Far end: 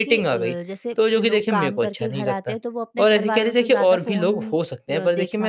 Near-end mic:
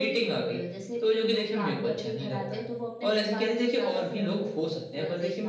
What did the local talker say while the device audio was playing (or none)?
none